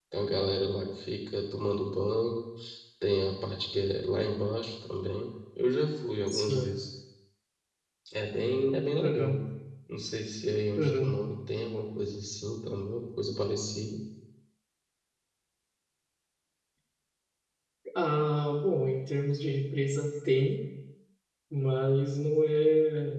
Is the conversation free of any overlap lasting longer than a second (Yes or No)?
Yes